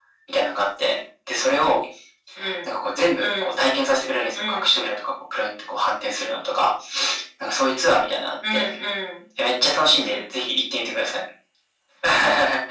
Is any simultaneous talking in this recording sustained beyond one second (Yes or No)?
No